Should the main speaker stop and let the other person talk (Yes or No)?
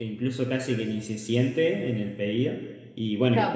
Yes